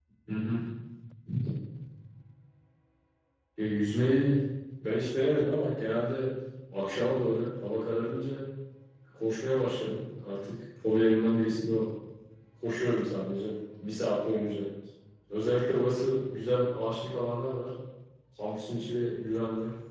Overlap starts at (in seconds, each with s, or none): none